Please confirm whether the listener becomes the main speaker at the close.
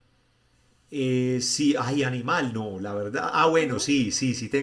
No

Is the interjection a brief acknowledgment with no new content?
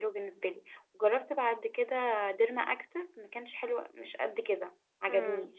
No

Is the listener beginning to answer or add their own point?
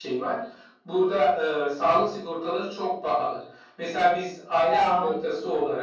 No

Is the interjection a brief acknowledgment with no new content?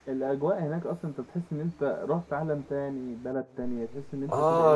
No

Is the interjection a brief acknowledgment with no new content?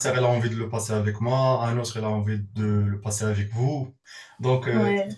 Yes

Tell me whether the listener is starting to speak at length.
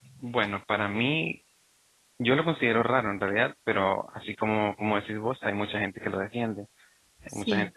No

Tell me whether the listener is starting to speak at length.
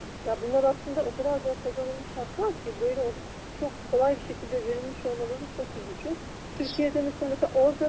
No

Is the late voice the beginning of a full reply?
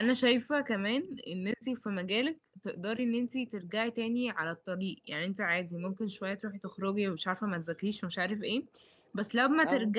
No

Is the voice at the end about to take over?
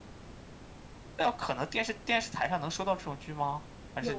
Yes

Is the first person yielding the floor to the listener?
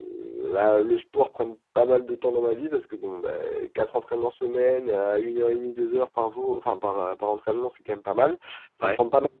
No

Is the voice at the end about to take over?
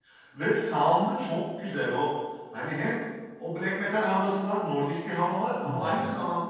No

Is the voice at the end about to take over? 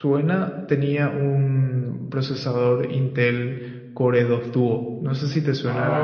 Yes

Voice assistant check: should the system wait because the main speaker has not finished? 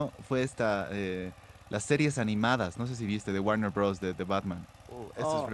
No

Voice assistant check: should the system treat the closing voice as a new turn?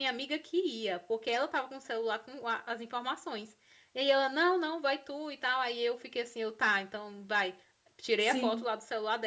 No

